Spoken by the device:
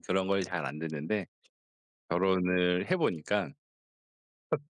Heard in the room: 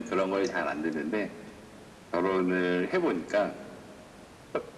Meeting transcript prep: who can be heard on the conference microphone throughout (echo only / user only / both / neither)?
echo only